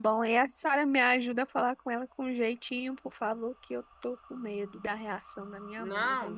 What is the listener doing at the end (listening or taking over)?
taking over